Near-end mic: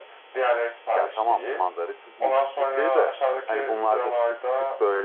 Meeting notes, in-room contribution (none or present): present